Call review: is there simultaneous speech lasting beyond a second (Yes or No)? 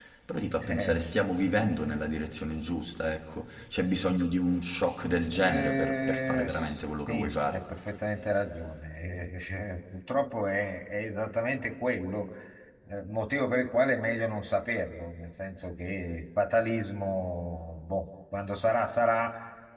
Yes